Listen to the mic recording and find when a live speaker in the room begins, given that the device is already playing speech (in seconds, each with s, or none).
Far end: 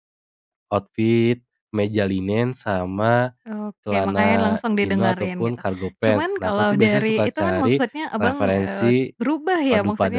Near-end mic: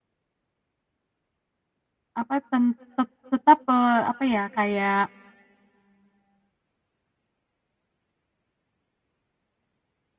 2.2 s